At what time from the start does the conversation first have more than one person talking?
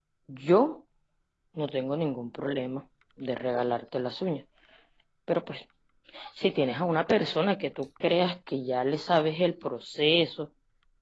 none

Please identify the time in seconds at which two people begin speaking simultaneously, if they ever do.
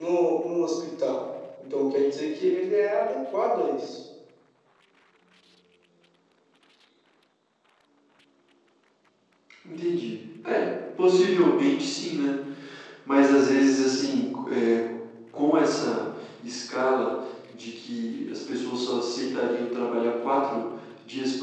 none

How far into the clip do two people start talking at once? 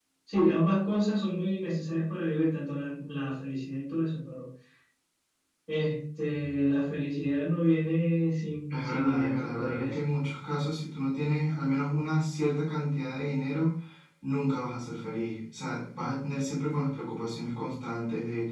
8.7 s

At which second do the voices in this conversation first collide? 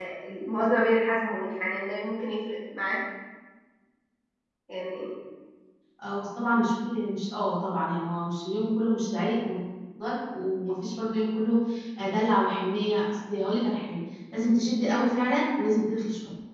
none

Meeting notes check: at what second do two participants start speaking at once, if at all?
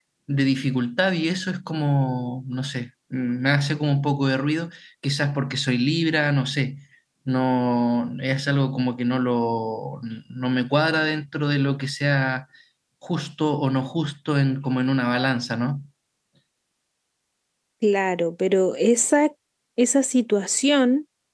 none

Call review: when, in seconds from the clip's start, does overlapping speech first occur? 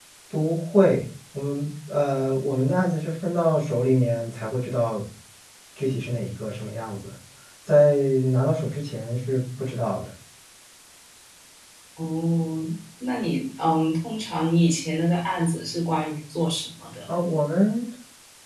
none

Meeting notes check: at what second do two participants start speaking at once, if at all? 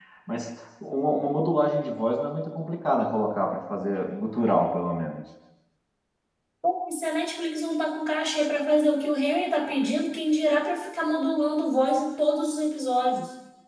none

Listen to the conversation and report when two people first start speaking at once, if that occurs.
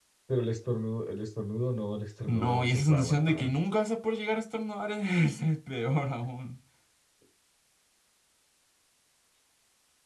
2.3 s

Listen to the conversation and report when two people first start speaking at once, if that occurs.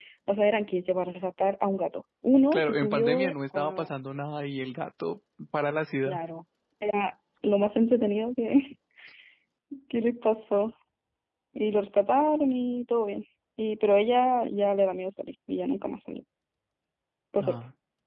2.5 s

